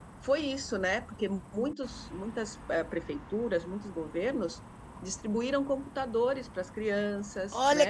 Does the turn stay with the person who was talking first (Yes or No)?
No